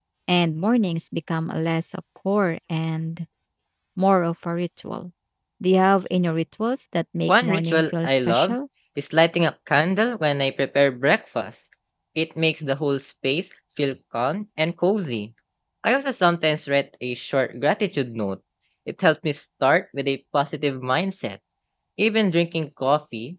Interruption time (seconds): 7.3 s

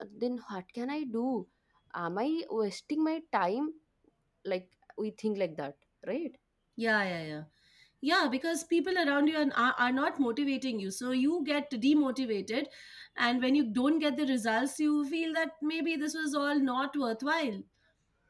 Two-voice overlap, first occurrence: none

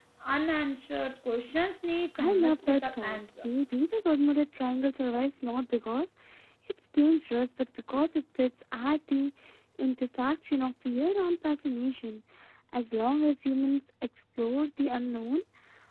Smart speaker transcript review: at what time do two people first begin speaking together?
2.1 s

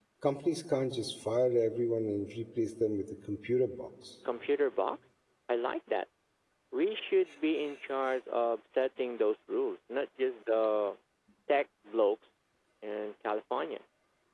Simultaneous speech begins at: none

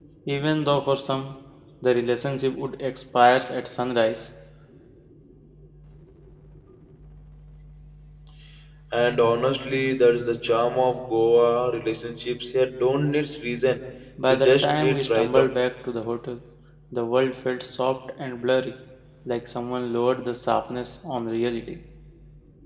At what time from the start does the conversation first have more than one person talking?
14.3 s

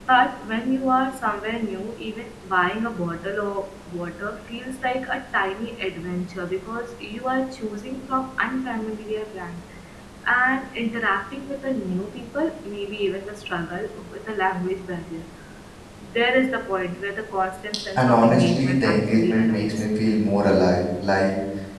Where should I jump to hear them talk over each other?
18.0 s

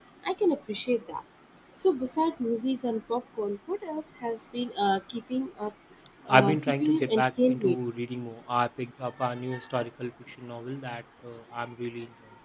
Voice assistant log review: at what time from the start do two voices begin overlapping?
6.3 s

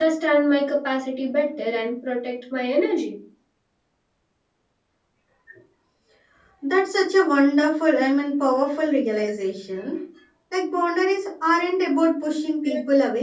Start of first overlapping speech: none

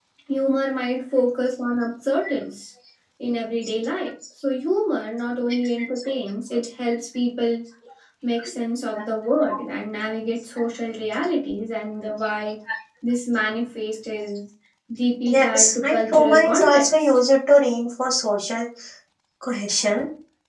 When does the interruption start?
15.3 s

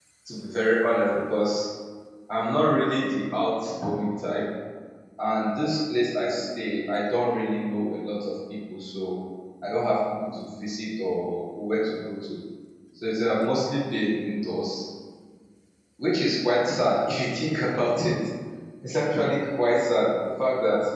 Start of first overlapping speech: none

